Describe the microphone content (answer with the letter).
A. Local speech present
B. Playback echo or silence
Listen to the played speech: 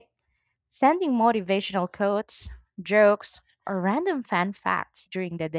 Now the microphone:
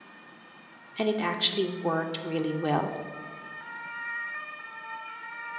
A